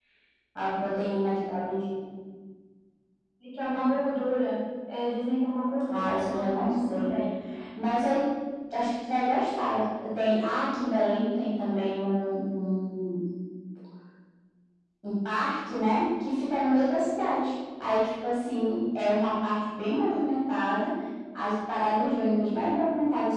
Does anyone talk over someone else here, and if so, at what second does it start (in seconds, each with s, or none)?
5.9 s